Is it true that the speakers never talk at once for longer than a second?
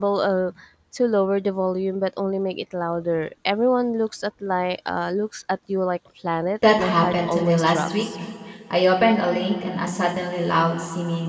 No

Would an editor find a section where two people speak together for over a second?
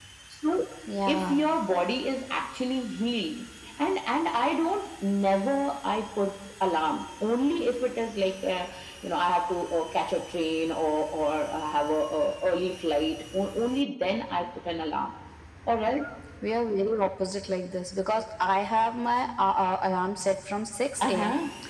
No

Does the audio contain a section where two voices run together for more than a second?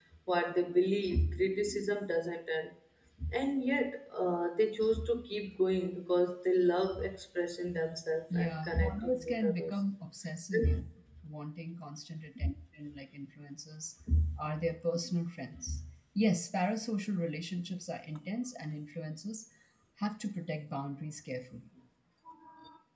Yes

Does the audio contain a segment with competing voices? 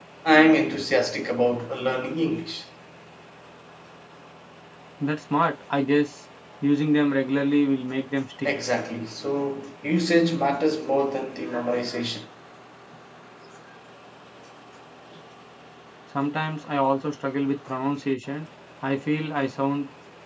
No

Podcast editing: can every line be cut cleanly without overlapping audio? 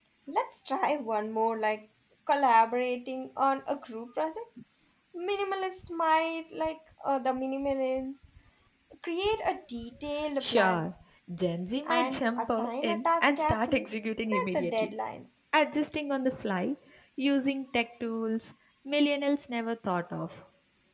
No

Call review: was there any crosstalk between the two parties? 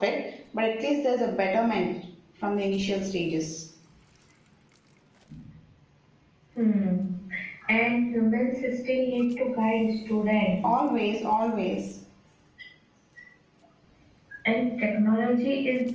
No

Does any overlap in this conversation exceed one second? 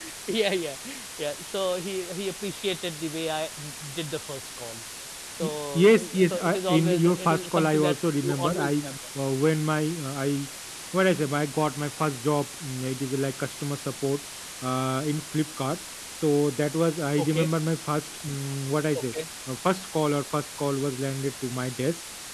Yes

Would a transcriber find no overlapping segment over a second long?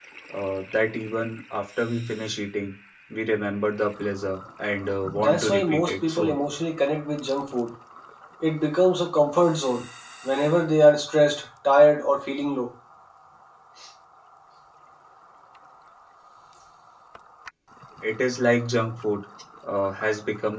No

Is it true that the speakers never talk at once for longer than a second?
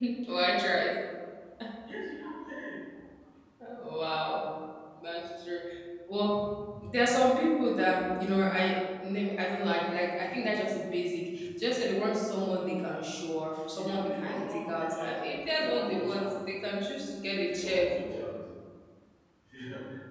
No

